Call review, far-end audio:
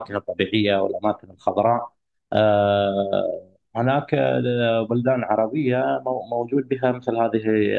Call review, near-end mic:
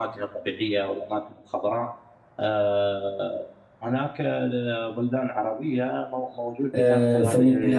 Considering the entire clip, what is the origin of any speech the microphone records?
both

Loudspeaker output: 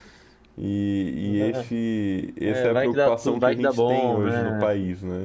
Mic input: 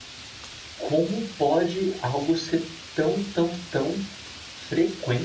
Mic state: user only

